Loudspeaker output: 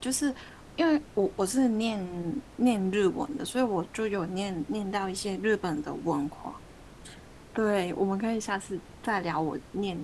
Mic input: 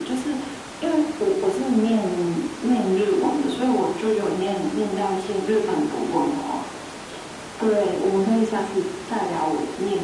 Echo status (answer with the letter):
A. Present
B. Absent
A